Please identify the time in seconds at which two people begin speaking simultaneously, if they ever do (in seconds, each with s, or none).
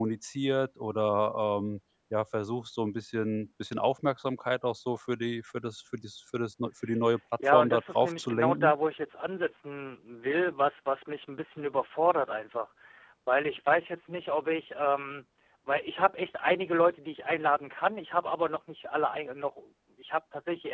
7.4 s